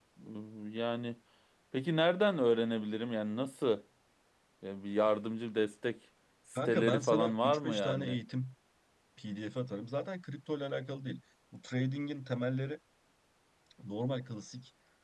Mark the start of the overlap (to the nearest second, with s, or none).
7 s